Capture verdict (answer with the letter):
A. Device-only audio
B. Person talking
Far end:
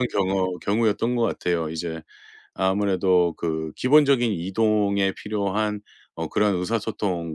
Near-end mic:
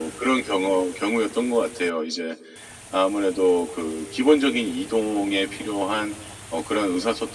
A